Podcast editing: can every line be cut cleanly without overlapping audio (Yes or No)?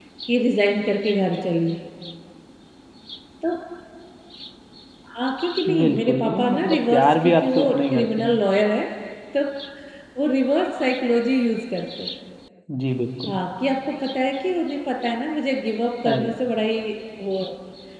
No